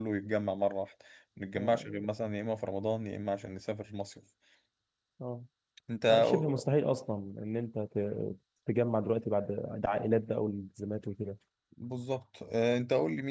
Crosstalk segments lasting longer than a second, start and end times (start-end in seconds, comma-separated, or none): none